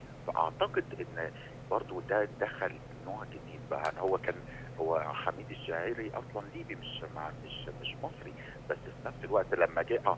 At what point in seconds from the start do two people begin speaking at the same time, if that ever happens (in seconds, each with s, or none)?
none